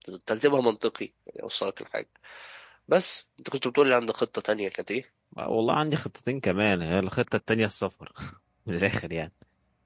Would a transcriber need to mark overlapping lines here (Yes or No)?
No